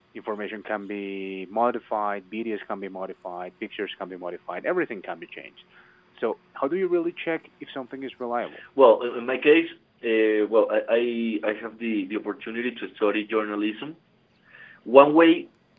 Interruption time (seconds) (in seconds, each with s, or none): none